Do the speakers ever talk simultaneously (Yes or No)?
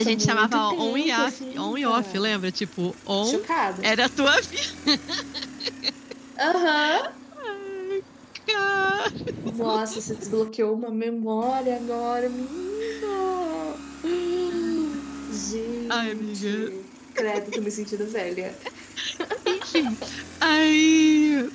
Yes